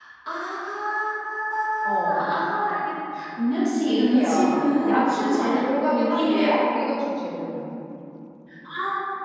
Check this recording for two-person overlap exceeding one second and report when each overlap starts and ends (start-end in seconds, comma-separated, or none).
3.8-6.6